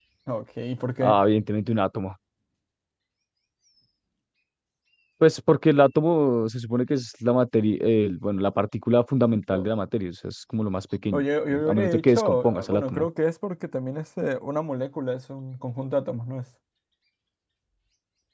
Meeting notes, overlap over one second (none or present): present